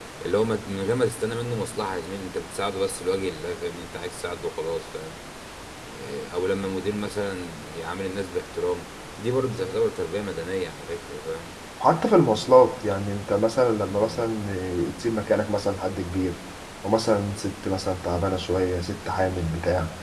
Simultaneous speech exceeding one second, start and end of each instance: none

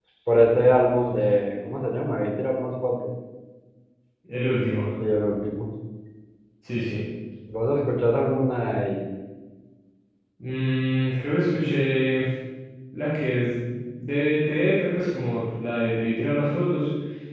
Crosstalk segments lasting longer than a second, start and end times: none

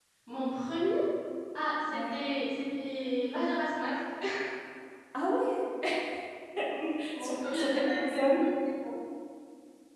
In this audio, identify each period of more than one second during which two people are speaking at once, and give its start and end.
7.2-8.4

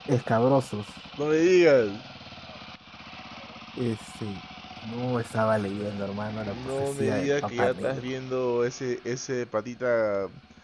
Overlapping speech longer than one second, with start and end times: 6.5-8.1

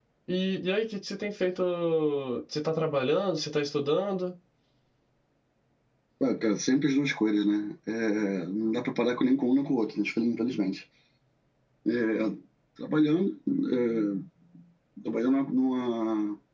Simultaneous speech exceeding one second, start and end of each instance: none

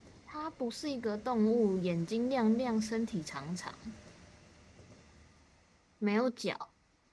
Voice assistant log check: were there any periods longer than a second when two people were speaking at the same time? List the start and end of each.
none

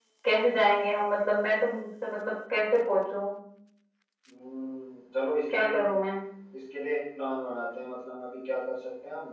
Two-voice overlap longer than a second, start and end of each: none

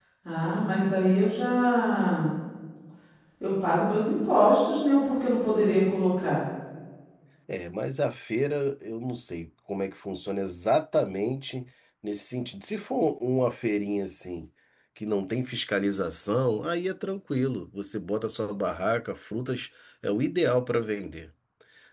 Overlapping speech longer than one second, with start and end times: none

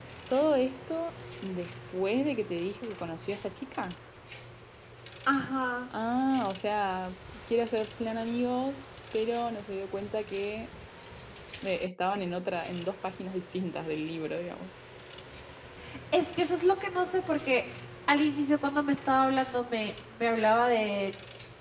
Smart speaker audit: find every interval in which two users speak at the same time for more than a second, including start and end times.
none

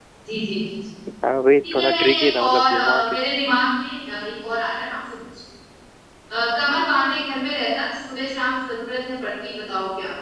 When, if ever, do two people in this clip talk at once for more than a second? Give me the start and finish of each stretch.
1.7-3.0

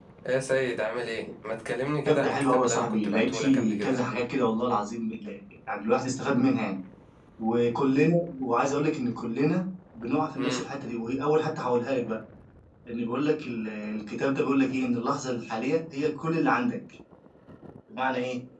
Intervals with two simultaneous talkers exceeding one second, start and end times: 2.0-4.0

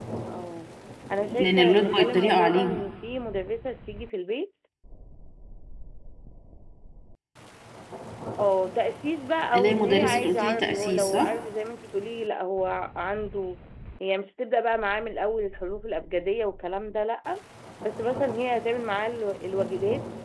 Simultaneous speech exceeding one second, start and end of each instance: 1.4-2.8, 9.6-11.3

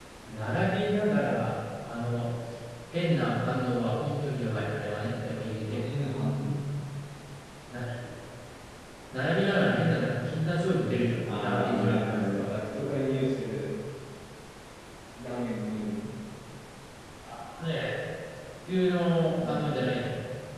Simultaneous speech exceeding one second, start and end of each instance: 11.2-12.6

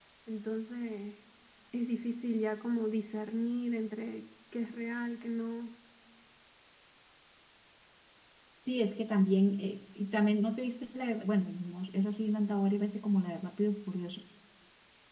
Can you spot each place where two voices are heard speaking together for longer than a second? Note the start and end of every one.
none

